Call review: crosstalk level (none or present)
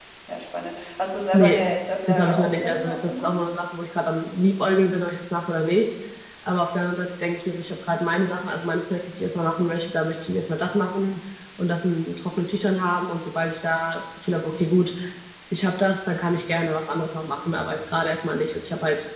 present